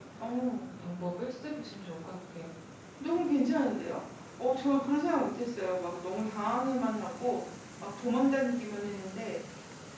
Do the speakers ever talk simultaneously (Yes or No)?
No